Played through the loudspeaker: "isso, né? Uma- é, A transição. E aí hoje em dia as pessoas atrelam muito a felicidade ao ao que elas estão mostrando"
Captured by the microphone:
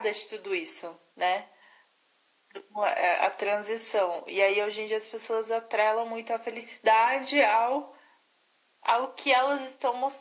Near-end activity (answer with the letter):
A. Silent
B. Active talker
A